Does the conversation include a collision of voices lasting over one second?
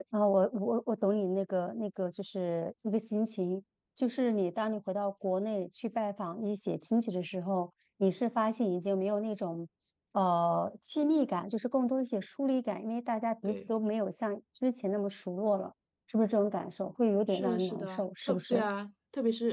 Yes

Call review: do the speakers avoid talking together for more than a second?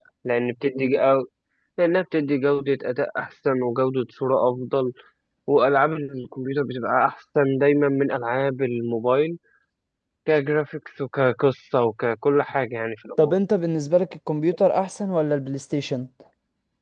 Yes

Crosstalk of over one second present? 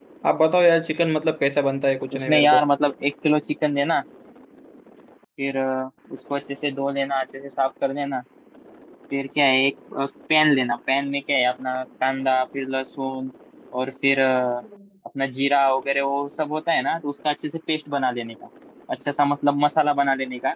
No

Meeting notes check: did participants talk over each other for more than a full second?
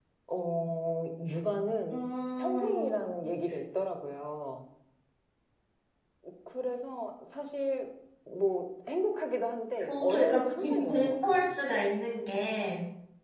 Yes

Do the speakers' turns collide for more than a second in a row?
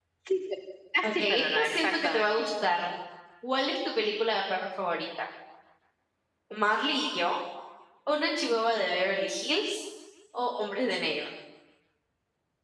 Yes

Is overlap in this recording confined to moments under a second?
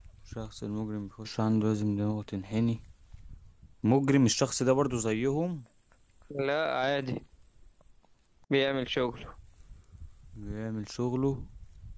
Yes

